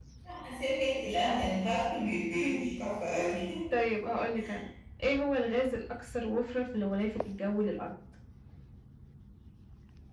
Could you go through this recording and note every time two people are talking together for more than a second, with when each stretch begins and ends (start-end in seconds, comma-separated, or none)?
none